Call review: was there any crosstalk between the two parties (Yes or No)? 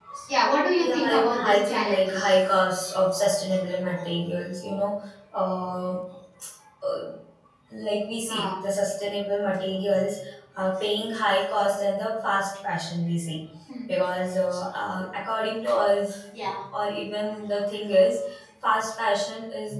Yes